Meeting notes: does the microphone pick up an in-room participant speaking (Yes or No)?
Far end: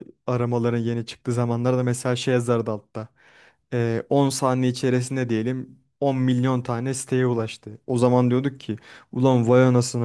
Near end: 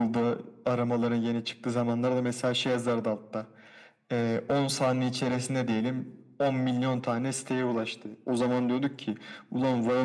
No